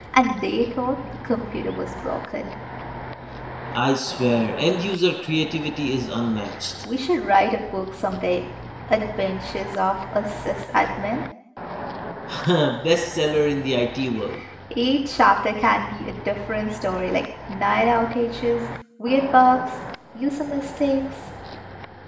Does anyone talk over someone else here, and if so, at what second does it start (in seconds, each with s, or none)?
none